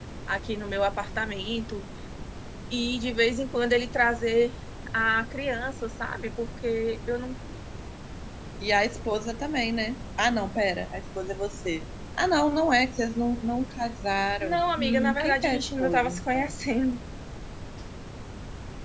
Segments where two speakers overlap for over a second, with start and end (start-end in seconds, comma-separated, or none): 14.4-16.6